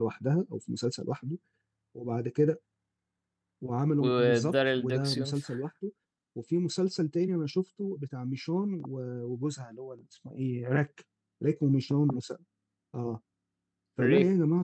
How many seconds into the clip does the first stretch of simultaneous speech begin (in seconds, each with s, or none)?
4.0 s